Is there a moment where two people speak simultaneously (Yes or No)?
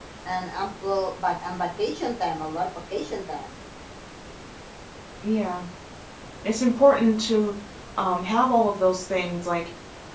No